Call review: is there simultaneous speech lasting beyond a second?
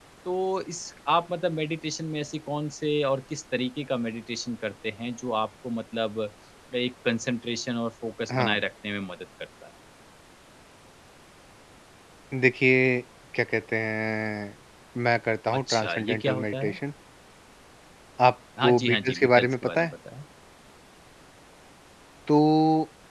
Yes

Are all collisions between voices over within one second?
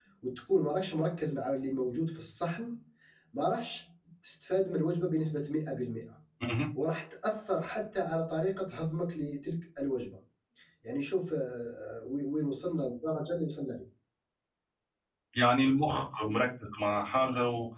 Yes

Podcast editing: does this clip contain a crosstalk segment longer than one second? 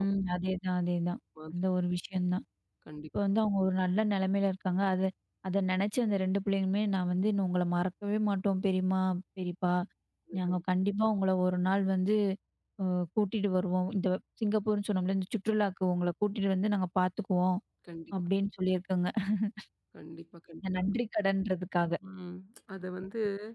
No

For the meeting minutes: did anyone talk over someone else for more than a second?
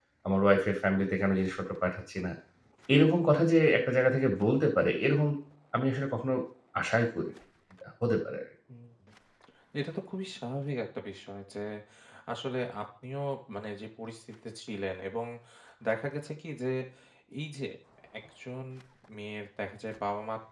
No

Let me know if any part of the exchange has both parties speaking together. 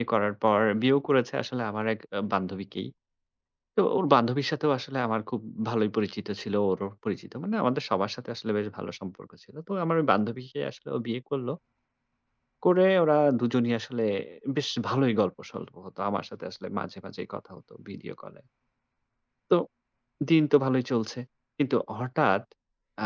No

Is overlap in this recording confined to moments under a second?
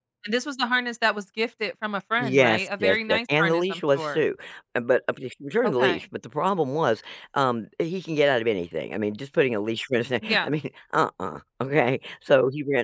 No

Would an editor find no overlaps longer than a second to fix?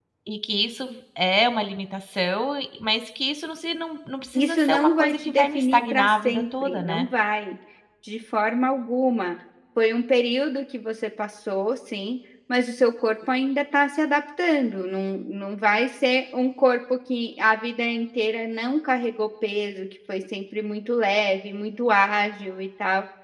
No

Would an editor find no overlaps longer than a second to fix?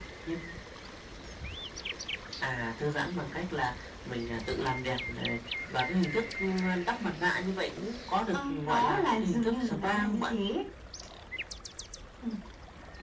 No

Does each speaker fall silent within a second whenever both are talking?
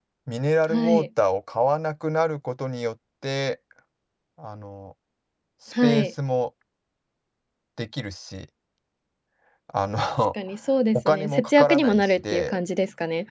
No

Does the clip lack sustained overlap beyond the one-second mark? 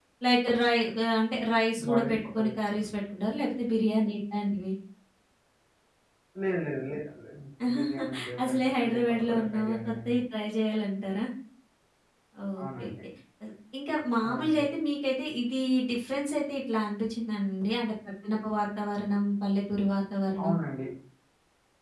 No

